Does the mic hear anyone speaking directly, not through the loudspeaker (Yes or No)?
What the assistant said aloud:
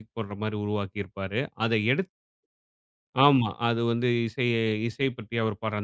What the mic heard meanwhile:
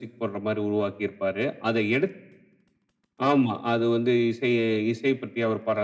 No